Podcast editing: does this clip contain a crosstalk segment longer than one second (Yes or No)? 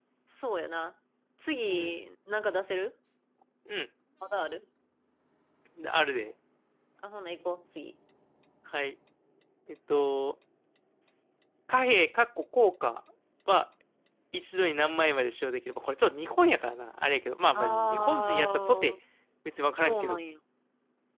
Yes